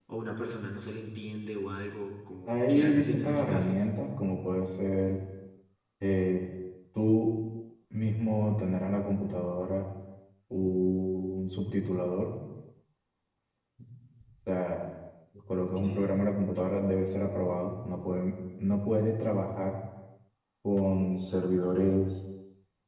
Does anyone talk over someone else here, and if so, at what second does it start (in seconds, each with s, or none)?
2.5 s